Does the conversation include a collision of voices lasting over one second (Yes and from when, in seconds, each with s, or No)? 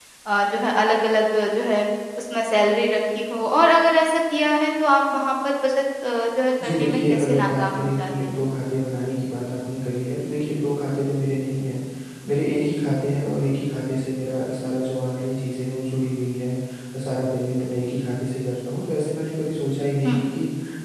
Yes, from 6.6 s